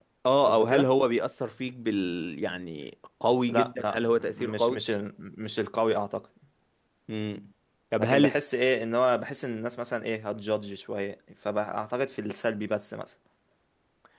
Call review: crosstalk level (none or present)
present